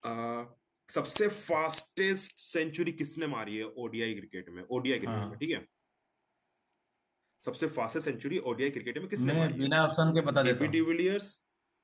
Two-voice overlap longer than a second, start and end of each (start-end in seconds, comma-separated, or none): none